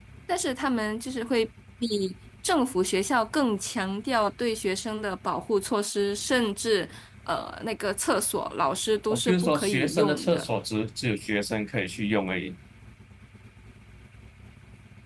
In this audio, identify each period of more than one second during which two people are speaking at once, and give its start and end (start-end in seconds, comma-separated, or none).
9.1-10.5